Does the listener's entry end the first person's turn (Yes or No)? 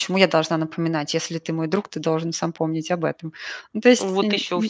Yes